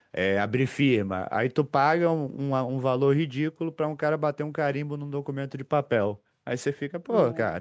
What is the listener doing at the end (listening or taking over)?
listening